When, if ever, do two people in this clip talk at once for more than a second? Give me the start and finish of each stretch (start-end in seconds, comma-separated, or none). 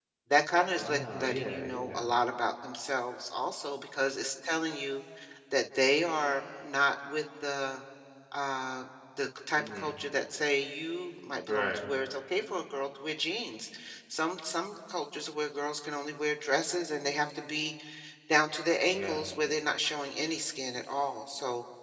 0.8-2.0